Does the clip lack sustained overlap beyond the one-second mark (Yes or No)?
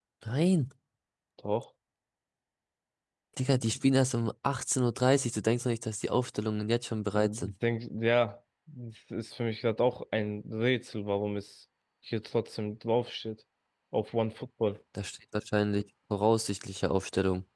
Yes